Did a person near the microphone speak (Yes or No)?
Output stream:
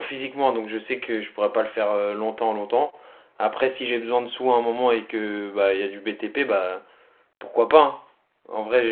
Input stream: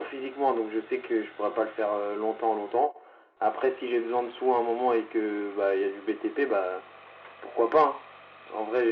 No